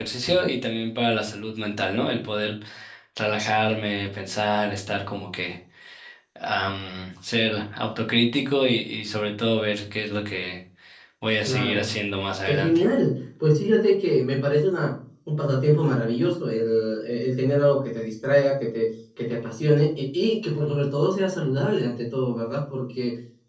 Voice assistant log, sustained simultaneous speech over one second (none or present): none